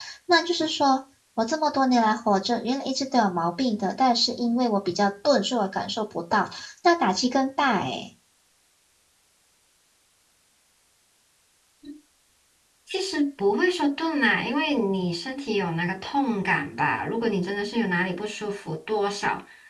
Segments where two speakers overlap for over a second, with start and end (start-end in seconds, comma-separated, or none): none